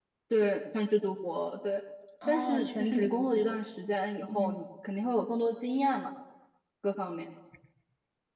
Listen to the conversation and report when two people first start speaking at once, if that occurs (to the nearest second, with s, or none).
2 s